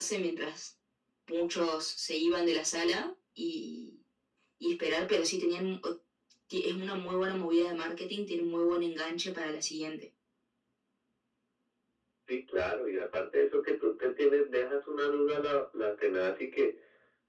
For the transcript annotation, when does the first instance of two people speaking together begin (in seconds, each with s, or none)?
none